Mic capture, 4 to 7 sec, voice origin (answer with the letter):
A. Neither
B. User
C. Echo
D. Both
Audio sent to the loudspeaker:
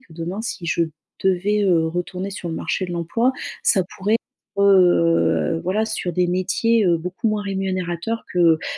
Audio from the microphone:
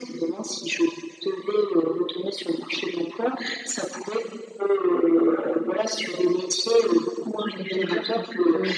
C